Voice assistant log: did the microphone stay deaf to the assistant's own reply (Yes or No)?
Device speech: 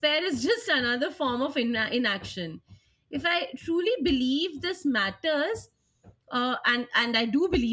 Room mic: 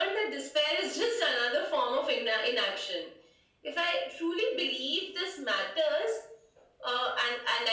No